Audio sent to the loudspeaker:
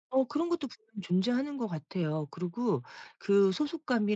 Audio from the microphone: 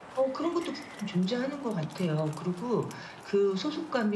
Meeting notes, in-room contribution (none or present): none